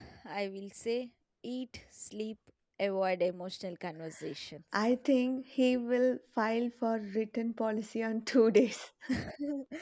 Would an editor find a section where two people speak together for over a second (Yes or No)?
No